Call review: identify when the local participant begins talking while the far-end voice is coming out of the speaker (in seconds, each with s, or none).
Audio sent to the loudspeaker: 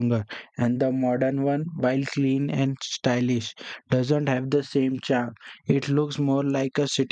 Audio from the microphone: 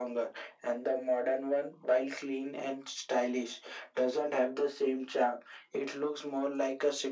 none